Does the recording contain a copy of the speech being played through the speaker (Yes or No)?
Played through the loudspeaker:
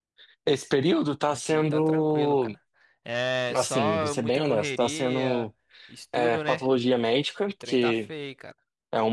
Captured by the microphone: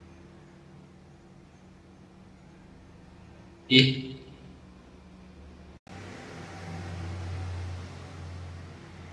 No